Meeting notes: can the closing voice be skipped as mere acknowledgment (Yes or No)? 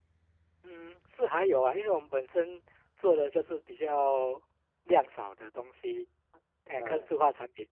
Yes